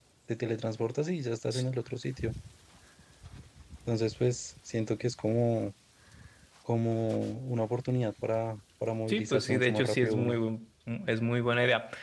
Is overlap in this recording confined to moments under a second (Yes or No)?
No